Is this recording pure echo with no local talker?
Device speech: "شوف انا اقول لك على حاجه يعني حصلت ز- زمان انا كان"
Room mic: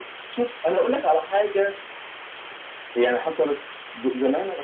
Yes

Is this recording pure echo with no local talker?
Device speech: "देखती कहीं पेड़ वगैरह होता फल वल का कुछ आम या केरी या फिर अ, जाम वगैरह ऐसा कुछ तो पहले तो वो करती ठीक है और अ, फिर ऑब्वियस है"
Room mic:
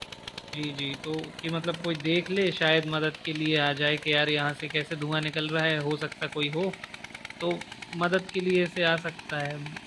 No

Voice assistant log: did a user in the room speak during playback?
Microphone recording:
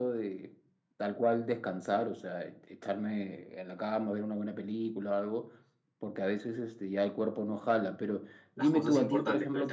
Yes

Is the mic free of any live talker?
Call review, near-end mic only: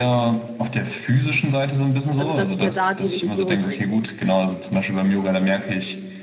No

